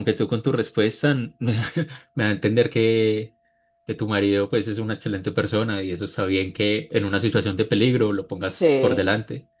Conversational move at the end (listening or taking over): taking over